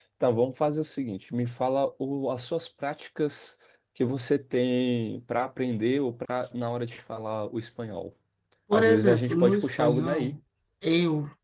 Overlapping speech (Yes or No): Yes